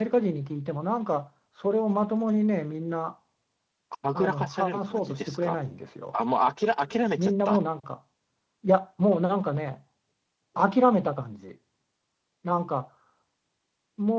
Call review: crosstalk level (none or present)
present